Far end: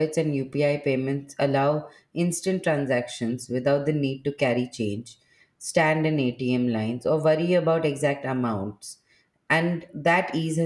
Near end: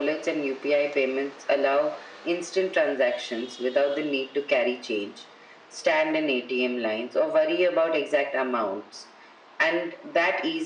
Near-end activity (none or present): none